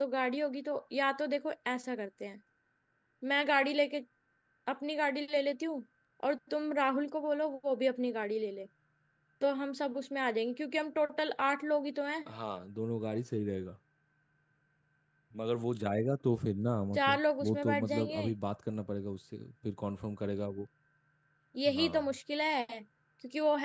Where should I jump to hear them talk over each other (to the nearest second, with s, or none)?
17 s